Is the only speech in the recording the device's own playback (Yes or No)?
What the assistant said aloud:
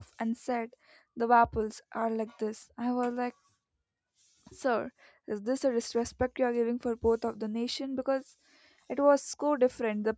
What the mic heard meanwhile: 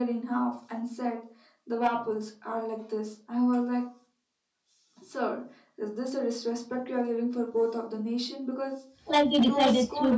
No